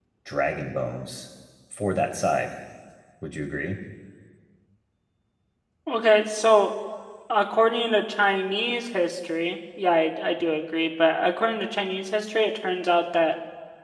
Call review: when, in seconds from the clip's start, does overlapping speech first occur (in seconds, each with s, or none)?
none